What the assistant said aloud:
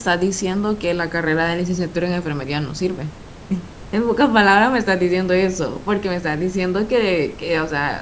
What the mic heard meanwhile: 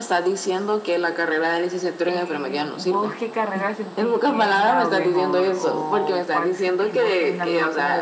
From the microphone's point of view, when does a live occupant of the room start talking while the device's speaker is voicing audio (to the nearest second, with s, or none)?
2 s